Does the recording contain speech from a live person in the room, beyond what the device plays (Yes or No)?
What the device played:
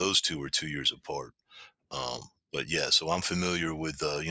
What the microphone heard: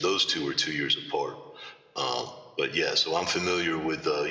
No